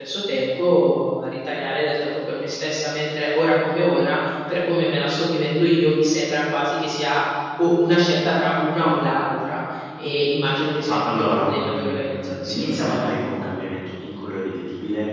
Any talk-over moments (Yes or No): Yes